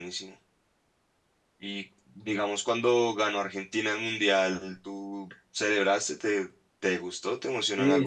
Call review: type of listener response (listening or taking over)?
taking over